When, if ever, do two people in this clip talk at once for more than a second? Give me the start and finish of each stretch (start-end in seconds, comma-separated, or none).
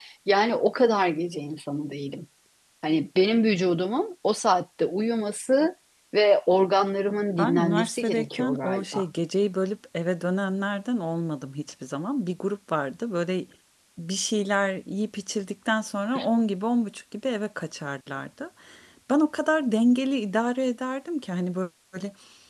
7.4-9.0